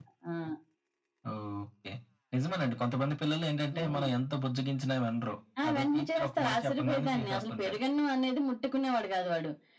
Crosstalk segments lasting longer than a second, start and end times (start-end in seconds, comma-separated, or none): 5.6-7.8